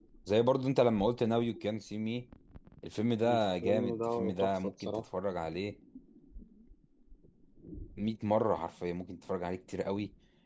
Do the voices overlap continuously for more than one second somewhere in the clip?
Yes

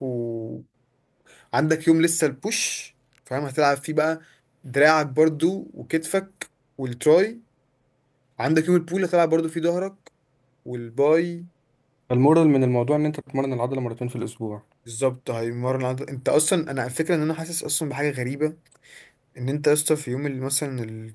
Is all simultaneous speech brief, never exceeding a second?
Yes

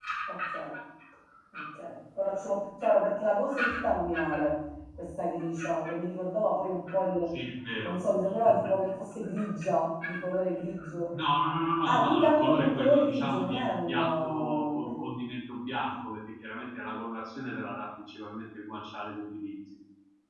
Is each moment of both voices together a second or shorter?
No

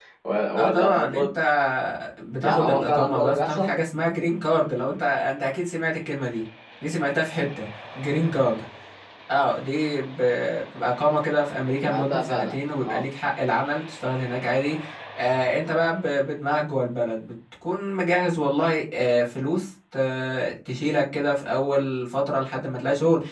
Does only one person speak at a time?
No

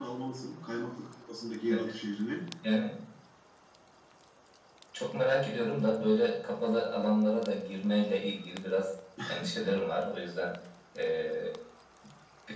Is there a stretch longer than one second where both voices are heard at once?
No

